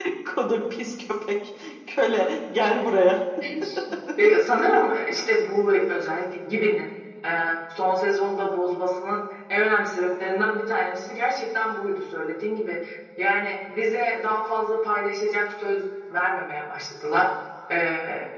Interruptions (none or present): none